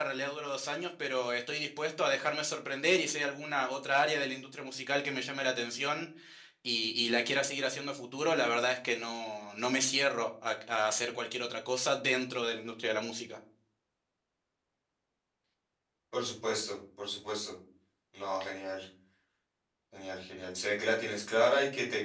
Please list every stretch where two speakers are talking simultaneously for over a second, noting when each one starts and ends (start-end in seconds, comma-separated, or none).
none